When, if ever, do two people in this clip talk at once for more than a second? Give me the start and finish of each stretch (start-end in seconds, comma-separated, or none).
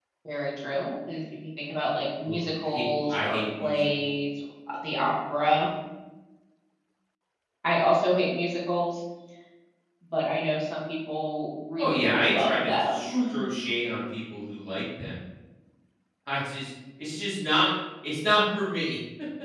2.2-4.1, 11.8-13.5